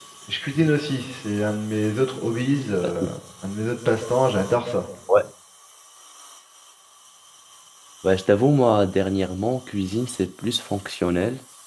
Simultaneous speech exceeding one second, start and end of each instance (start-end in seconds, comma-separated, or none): none